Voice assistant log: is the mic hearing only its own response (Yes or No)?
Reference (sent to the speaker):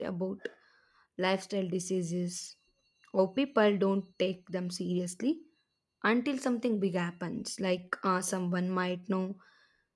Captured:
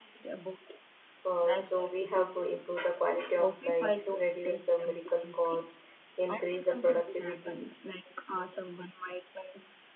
No